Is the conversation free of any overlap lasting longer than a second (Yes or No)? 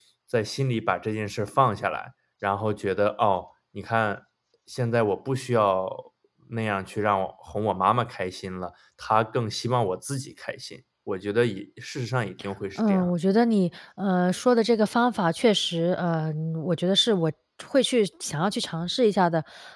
Yes